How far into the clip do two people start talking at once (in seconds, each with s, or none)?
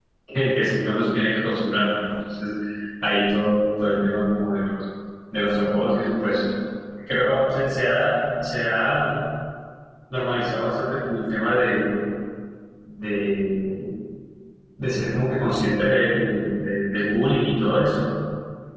none